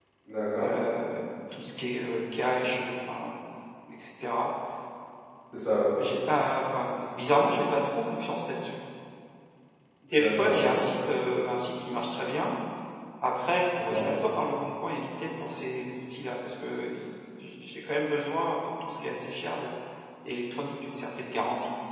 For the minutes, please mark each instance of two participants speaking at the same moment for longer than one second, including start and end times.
none

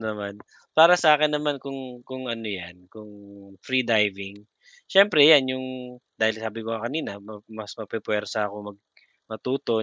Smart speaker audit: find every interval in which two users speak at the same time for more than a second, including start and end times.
none

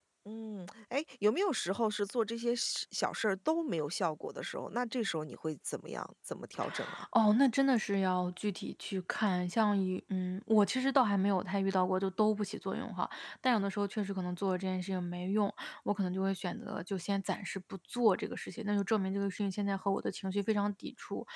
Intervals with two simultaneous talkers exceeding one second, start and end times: none

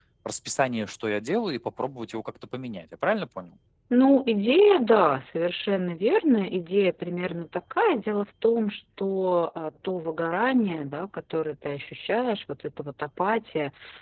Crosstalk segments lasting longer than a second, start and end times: none

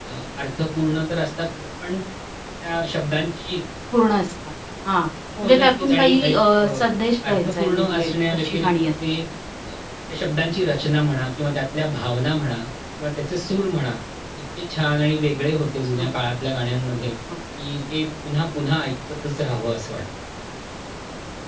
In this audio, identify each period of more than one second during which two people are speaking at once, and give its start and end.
5.4-6.6, 7.3-8.9

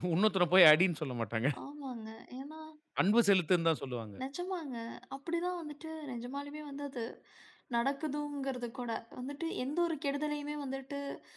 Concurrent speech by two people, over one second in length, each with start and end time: none

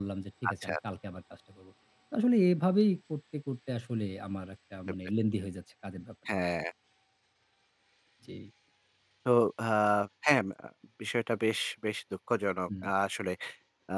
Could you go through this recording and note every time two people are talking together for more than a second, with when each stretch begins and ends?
none

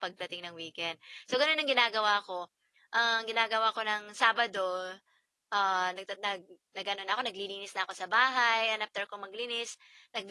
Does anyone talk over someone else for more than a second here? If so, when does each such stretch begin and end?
none

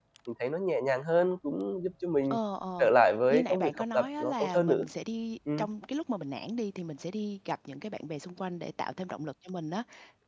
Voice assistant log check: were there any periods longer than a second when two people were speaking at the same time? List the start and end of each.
3.3-4.8

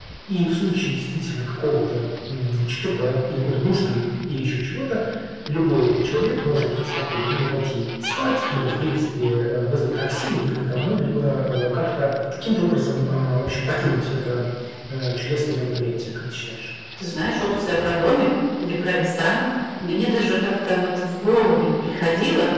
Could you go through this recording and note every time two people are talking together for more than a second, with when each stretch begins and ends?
none

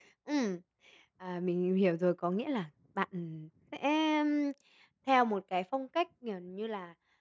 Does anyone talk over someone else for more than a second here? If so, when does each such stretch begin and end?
none

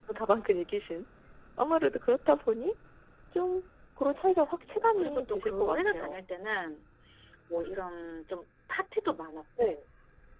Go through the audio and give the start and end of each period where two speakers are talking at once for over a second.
4.7-6.2

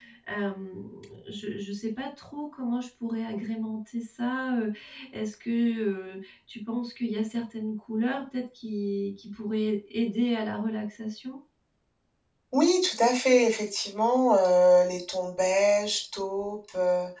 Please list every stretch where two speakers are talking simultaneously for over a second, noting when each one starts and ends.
none

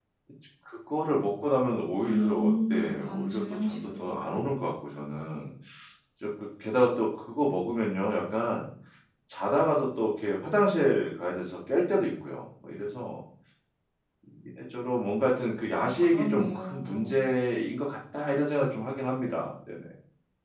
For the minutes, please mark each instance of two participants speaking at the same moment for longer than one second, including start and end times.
2.0-4.0, 15.8-17.1

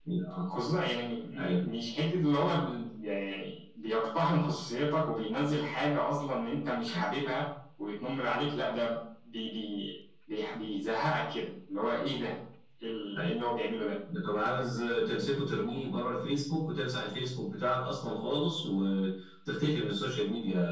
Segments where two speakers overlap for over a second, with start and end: none

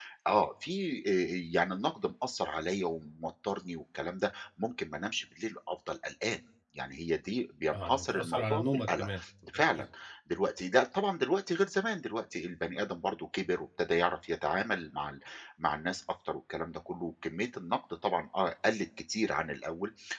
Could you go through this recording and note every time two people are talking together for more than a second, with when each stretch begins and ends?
7.7-9.1

